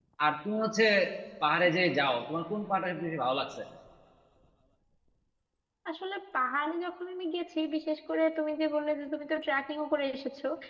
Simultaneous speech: No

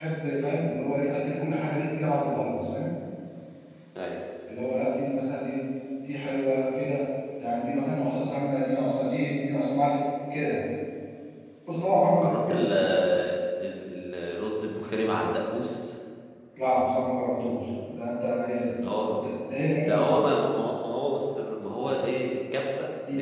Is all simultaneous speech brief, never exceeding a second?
Yes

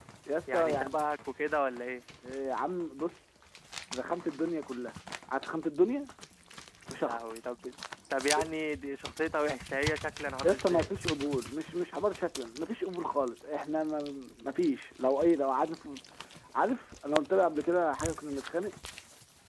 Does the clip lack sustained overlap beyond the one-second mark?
Yes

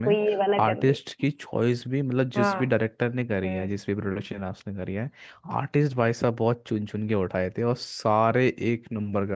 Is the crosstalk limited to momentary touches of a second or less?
Yes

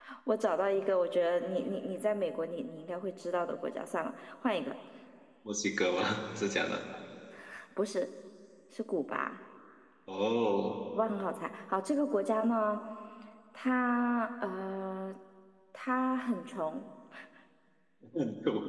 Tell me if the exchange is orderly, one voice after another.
Yes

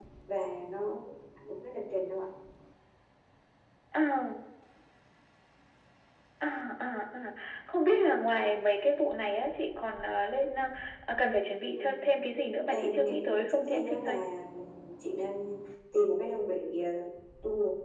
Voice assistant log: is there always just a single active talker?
No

